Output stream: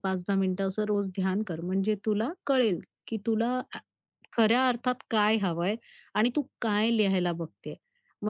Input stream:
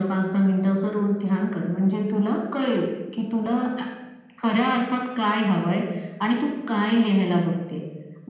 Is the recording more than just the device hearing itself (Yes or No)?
No